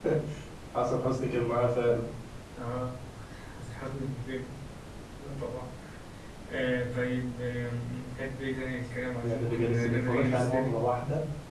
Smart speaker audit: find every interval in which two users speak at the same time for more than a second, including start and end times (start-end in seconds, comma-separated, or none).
9.2-10.7